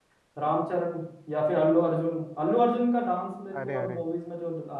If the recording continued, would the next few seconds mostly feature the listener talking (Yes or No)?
No